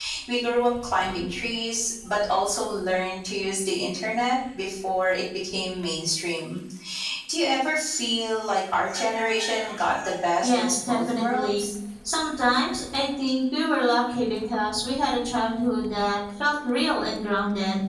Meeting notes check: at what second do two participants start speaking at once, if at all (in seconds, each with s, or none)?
10.4 s